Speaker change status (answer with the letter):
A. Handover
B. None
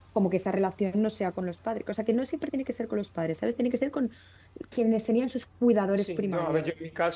A